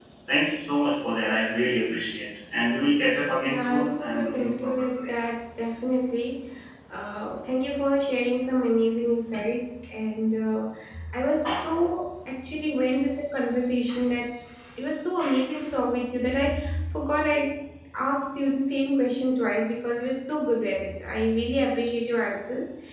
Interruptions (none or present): present